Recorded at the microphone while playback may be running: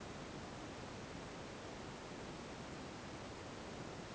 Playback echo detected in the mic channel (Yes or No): No